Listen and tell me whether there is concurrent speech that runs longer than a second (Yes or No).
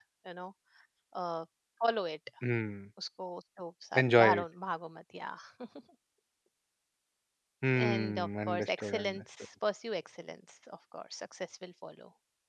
Yes